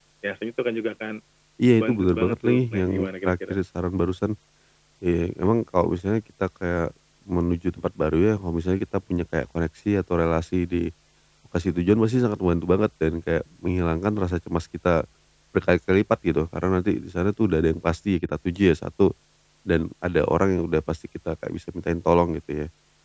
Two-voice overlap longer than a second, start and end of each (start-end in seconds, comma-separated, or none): 1.7-3.5